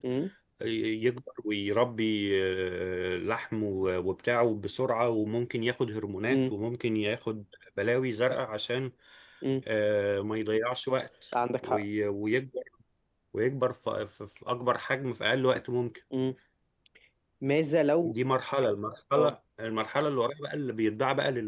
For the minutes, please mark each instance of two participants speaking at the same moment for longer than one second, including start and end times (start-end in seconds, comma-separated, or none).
none